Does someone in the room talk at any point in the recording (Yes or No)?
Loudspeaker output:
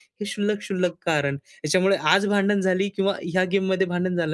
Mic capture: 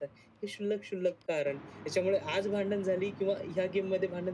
No